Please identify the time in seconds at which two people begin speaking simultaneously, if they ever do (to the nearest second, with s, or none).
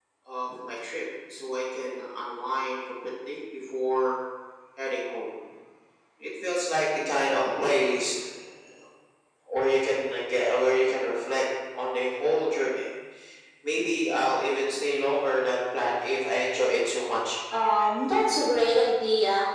none